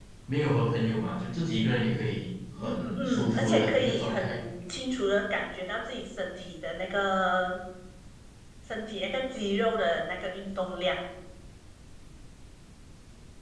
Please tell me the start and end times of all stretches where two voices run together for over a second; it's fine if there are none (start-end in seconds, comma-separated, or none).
2.6-4.4